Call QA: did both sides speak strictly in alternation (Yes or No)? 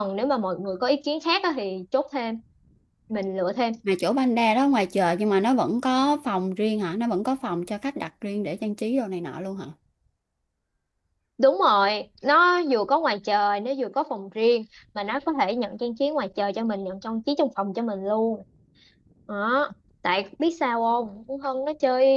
Yes